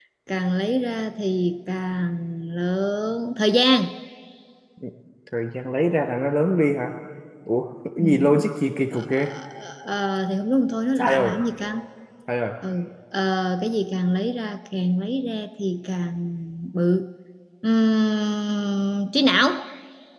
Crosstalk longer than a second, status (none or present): none